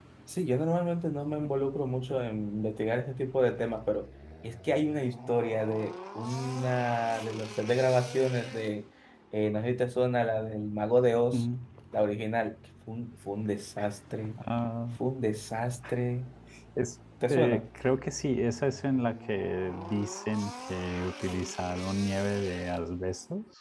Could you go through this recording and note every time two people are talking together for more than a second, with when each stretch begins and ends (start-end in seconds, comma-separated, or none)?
none